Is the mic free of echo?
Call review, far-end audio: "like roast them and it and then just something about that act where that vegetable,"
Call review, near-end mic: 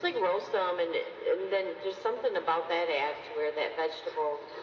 No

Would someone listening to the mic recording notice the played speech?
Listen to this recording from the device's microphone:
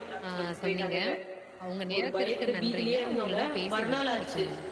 Yes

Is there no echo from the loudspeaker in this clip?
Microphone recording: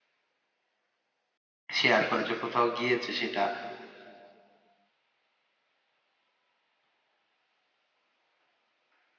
Yes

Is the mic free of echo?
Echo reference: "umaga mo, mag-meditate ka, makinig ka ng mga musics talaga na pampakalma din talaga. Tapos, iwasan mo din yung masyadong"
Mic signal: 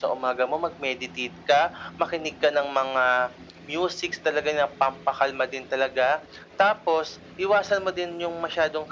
No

